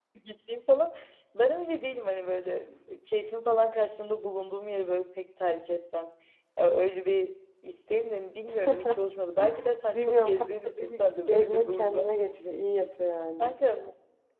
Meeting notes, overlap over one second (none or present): present